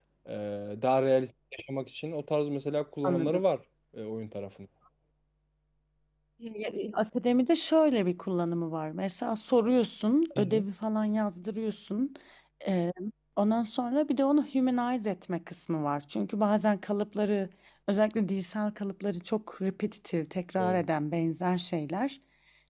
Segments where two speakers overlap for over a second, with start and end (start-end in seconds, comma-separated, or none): none